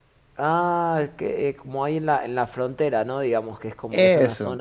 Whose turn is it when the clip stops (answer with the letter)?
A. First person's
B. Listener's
A